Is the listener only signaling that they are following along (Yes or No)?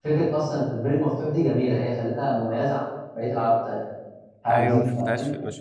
No